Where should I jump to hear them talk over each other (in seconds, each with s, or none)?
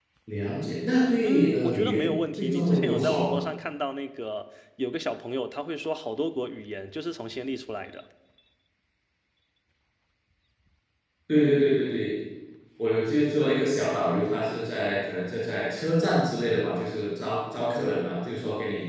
1.2 s